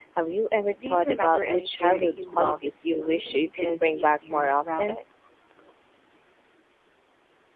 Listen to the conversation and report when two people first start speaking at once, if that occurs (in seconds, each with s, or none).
0.8 s